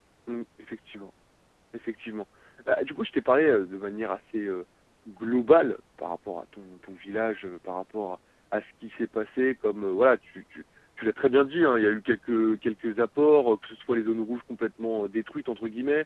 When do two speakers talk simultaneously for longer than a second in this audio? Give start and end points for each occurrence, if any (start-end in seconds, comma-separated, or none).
none